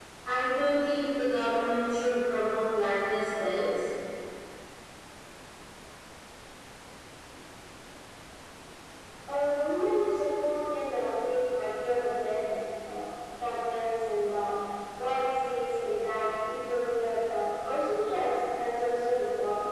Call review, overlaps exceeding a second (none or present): none